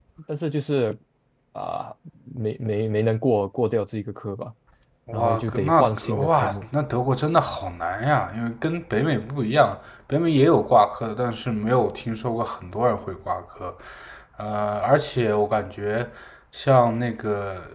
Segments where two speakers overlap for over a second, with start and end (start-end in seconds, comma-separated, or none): 5.1-6.7